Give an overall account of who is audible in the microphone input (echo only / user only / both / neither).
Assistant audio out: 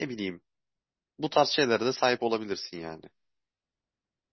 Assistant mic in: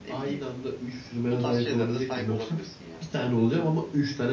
both